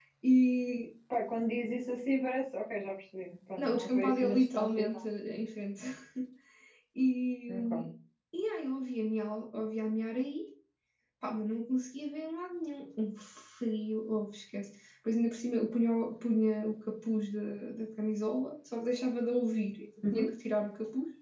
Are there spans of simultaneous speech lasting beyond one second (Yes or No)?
Yes